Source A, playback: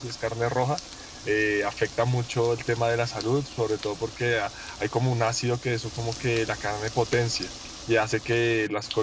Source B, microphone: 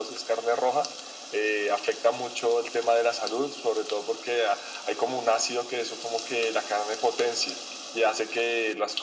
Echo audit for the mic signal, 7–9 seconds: echo only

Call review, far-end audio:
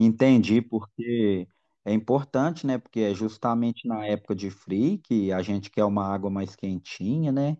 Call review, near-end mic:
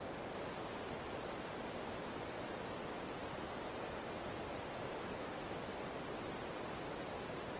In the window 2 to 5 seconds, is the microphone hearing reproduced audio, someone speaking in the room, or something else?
neither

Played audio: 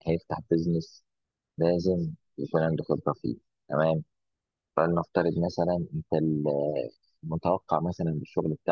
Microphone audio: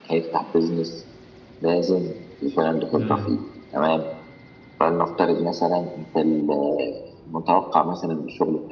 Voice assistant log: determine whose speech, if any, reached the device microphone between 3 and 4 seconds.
both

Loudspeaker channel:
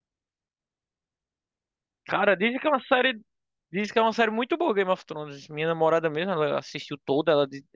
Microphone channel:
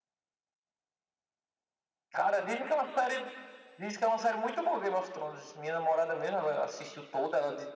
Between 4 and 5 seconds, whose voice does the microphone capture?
echo only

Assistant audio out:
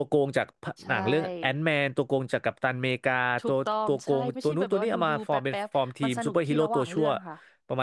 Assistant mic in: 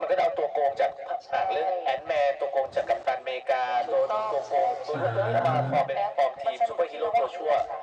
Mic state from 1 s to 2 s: echo only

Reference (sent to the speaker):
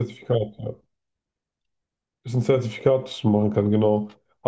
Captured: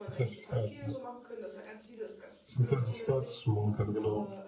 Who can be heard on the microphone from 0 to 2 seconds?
both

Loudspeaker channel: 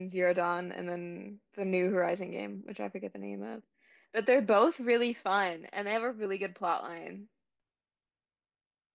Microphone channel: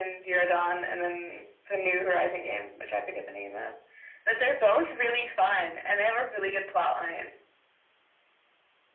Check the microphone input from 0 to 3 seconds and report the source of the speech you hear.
echo only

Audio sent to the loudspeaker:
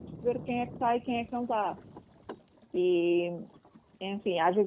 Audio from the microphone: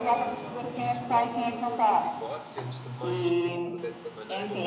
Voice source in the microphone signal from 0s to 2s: both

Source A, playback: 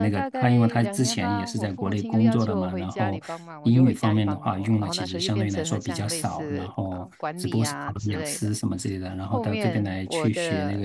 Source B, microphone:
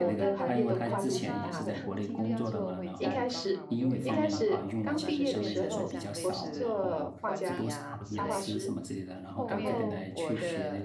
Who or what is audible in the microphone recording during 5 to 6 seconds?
both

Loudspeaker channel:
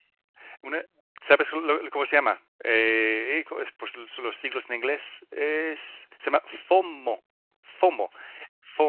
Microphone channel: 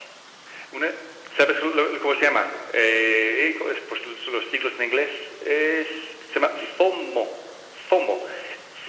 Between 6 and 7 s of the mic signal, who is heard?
echo only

